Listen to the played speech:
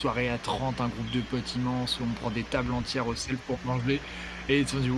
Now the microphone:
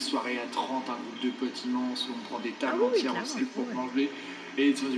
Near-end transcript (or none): Ah, oui, oui, clairement! Ouais, ouais!